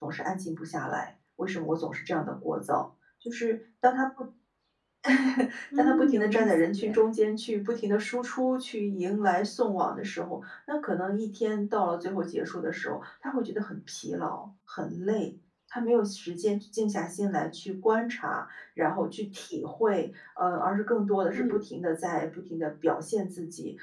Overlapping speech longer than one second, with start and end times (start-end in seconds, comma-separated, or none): 5.8-7.1